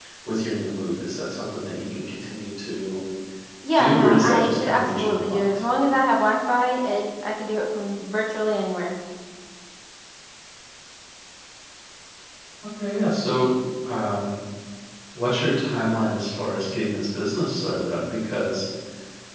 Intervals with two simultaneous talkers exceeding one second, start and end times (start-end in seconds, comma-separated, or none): 3.8-5.4